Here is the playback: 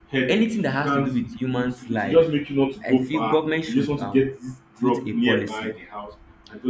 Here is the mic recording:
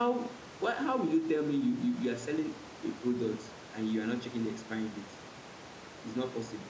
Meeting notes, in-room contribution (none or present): present